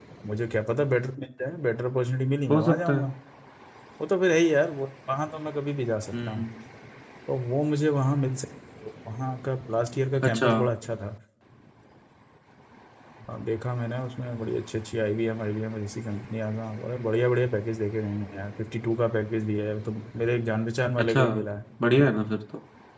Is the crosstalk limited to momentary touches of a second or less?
Yes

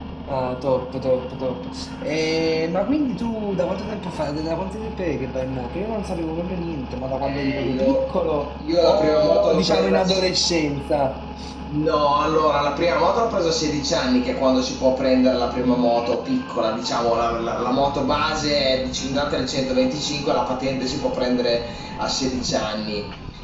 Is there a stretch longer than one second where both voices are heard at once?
Yes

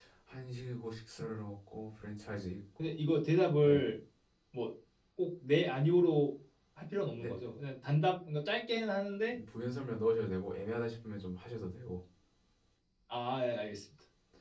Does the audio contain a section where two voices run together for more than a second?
No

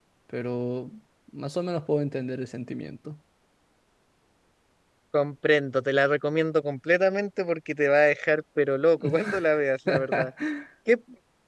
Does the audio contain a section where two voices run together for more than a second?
No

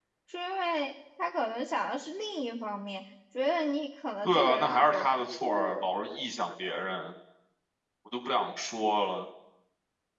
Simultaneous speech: Yes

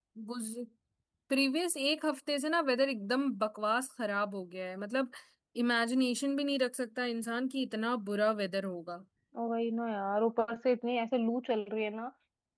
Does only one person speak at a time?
Yes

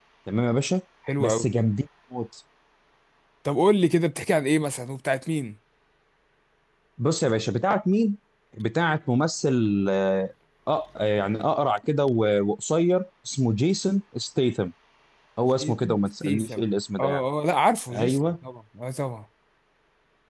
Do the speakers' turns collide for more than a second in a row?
Yes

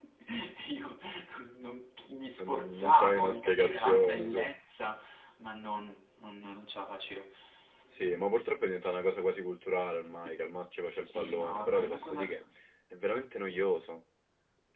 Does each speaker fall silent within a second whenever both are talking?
No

